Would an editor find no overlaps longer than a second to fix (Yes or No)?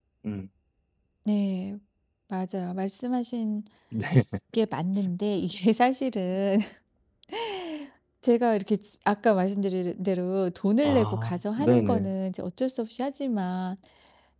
No